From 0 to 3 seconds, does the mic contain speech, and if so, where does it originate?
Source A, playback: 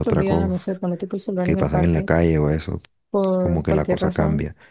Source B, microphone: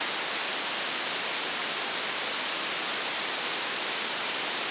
neither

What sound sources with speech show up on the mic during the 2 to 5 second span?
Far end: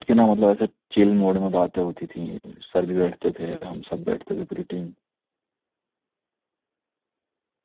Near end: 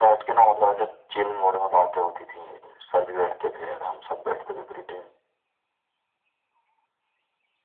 echo only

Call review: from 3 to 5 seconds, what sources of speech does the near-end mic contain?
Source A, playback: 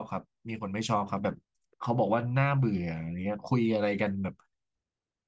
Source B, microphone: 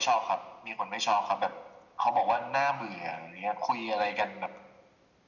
echo only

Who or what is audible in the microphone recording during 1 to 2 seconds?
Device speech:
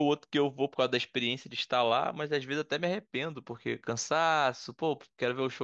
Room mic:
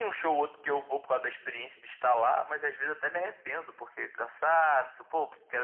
echo only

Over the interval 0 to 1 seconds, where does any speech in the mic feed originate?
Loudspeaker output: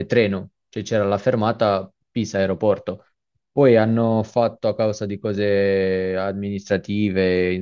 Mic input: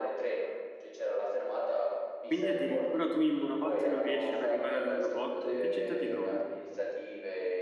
echo only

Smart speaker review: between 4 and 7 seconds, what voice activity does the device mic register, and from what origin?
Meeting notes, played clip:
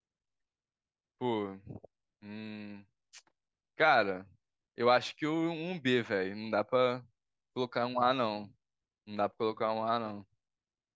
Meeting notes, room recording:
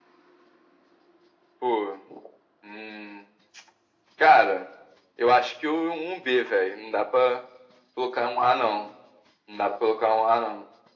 echo only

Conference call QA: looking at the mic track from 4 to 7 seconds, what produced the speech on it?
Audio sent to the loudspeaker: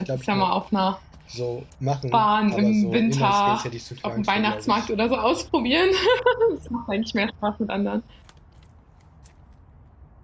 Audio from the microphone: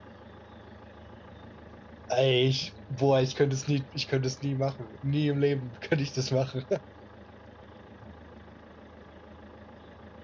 user only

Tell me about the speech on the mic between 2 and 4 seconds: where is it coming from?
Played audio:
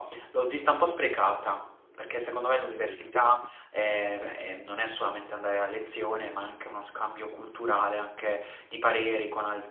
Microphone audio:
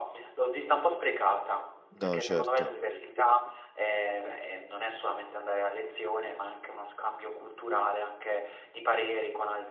both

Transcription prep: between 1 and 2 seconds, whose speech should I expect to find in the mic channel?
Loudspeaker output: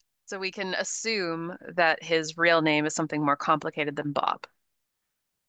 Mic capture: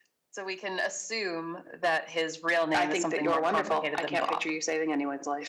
echo only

